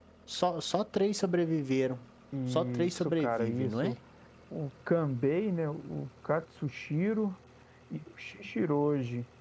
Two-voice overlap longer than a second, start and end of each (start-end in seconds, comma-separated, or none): 2.5-3.9